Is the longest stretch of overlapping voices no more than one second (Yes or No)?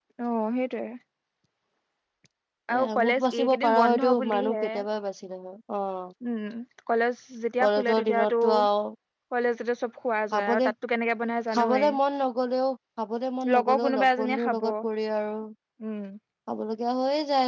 No